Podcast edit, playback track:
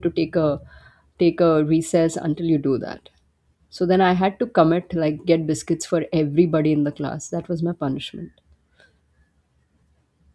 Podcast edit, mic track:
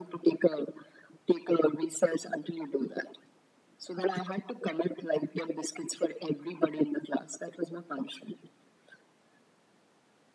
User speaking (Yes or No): No